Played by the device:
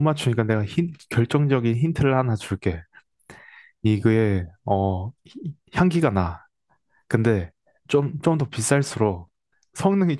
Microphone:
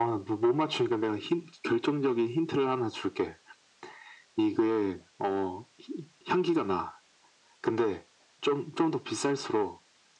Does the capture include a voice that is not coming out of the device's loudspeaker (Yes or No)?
No